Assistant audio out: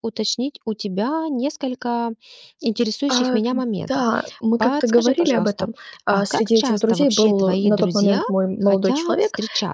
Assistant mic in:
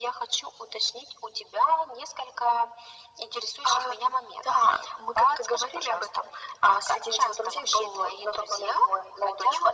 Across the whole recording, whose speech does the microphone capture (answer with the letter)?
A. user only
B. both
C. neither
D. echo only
D